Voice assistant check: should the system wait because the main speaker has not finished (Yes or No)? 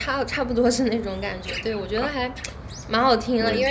Yes